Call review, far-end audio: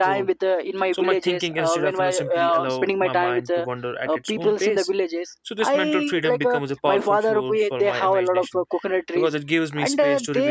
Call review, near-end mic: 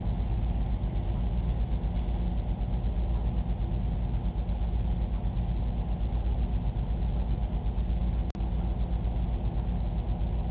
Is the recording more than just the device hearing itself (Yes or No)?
No